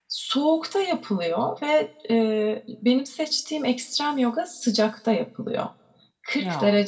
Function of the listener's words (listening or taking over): listening